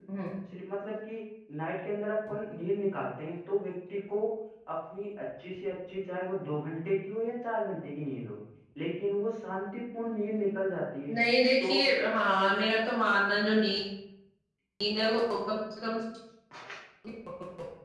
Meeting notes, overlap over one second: none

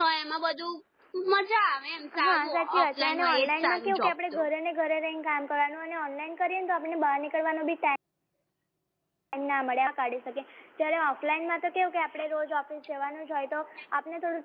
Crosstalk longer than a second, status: present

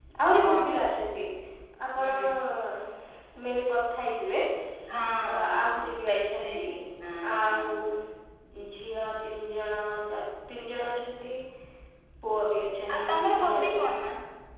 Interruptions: present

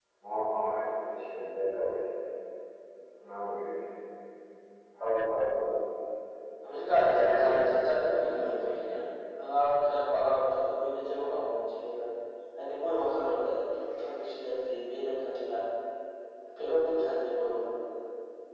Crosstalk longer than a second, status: present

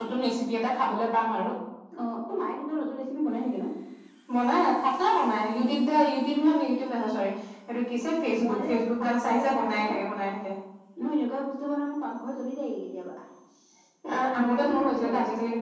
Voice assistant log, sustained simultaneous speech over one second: present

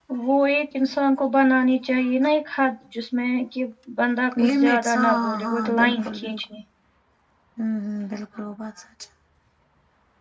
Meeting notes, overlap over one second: present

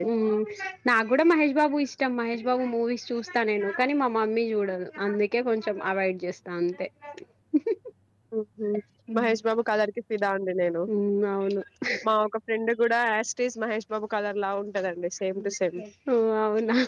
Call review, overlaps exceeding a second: none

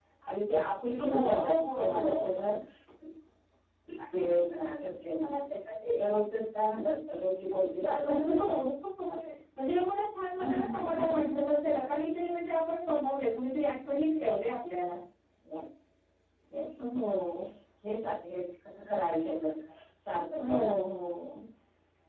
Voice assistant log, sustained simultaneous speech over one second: present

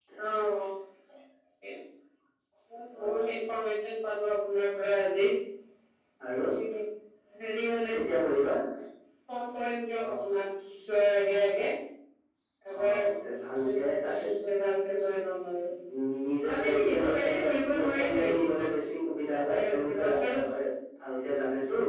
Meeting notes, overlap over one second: present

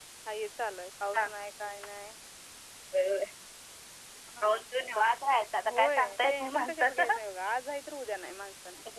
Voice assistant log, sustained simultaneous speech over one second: present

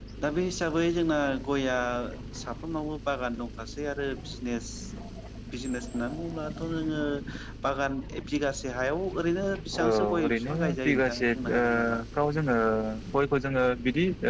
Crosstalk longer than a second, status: present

